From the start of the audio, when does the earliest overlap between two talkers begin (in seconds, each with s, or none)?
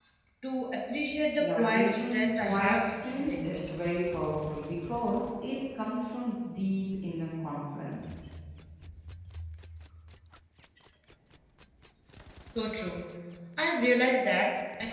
1.4 s